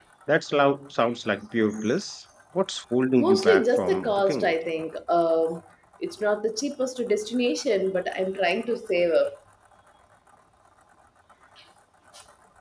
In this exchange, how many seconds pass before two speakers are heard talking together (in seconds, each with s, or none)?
3.2 s